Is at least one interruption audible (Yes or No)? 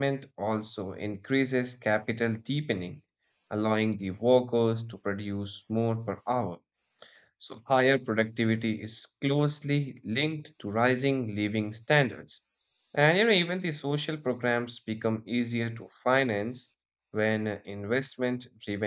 No